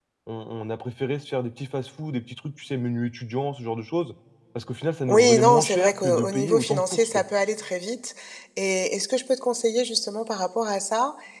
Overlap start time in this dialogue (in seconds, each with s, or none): 5.1 s